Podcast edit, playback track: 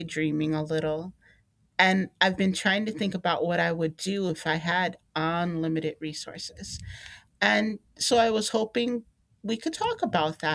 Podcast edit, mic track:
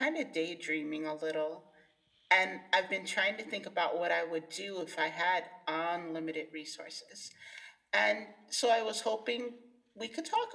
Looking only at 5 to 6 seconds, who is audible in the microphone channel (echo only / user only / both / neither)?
echo only